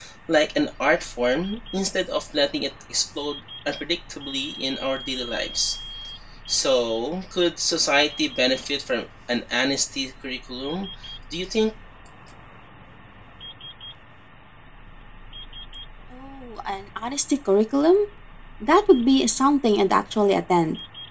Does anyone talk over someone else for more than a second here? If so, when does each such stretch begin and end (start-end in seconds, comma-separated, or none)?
none